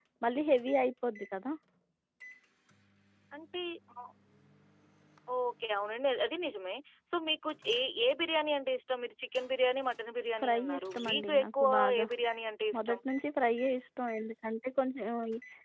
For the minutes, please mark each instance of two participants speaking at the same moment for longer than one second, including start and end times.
10.4-12.1

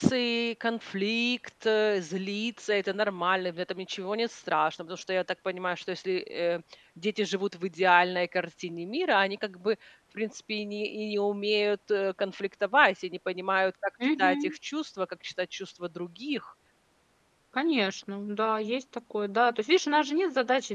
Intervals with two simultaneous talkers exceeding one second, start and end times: none

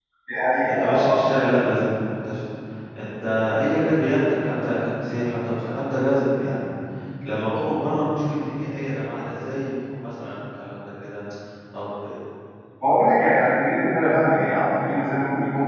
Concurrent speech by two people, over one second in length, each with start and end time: none

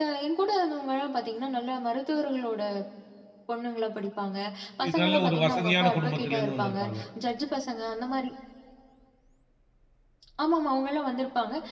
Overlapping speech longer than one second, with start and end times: 4.8-6.8

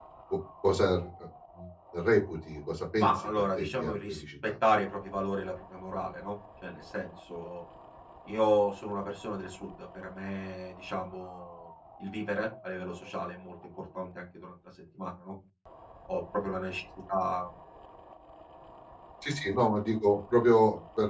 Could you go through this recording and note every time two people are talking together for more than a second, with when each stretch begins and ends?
3.0-4.5

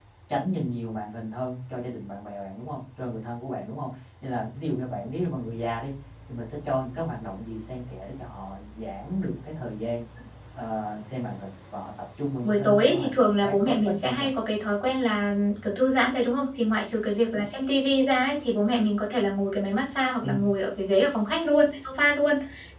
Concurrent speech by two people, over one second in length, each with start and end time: 12.4-14.3

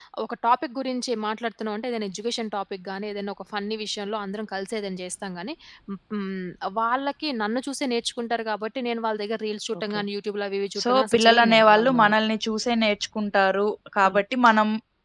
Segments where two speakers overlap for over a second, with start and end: 10.8-12.2

